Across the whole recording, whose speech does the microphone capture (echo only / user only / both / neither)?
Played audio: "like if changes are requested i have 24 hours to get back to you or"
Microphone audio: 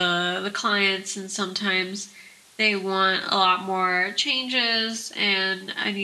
user only